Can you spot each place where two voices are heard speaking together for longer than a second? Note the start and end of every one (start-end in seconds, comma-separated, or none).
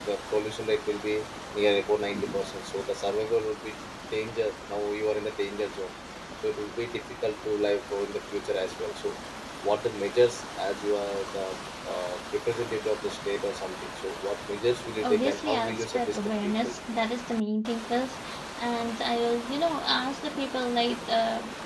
15.0-16.7